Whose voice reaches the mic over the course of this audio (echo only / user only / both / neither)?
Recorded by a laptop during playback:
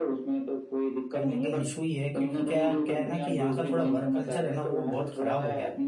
both